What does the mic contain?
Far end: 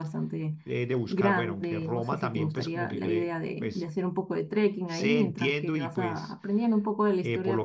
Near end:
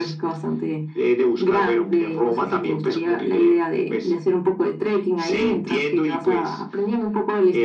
echo only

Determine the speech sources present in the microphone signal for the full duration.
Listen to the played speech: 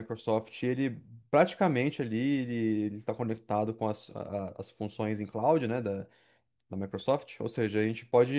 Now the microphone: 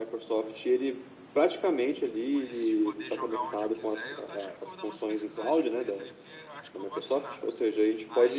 both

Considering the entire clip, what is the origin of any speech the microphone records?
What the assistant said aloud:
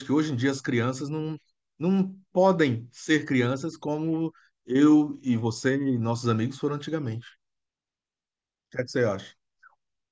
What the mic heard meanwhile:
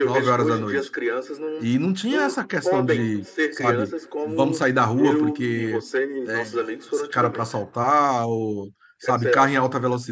both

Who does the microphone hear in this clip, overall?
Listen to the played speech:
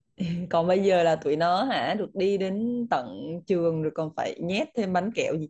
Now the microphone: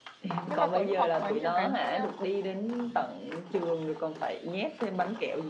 both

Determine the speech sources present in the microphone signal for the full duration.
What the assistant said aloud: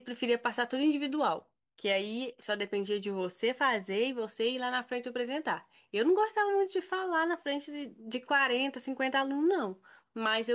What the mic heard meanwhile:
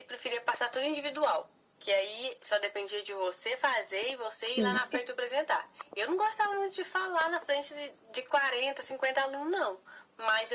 both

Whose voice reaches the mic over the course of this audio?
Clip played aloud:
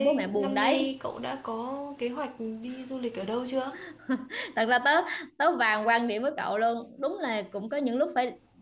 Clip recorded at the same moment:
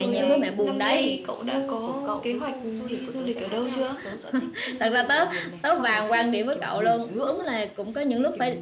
both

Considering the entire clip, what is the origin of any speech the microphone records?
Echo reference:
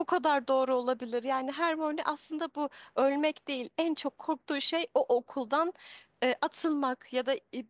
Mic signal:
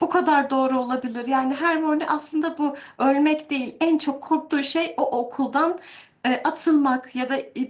echo only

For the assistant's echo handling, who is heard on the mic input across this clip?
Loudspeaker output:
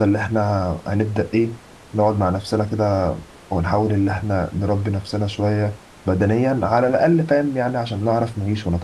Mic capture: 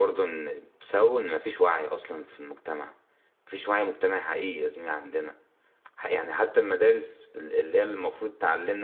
user only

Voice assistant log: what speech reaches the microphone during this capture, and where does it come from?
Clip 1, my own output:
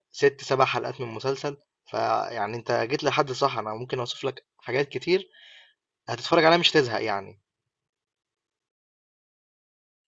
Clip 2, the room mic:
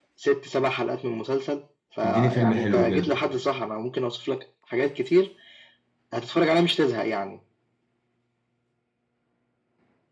both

